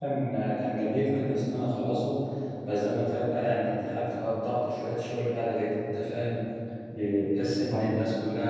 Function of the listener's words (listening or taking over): listening